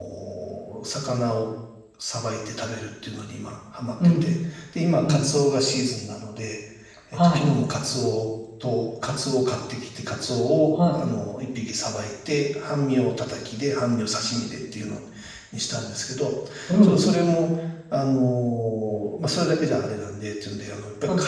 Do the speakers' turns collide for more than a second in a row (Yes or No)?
No